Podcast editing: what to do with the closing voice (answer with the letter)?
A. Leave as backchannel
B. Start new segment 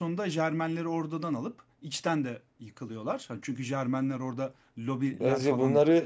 B